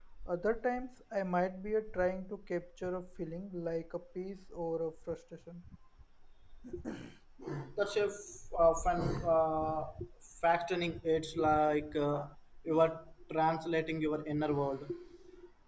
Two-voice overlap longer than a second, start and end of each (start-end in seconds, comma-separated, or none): none